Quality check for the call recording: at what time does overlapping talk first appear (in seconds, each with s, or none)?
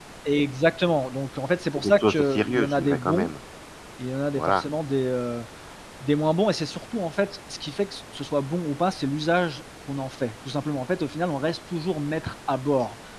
1.8 s